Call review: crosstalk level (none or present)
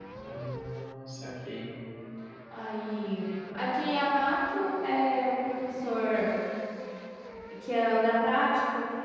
none